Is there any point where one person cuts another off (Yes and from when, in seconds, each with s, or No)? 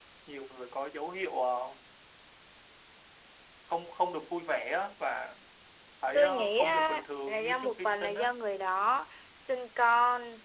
Yes, from 6.1 s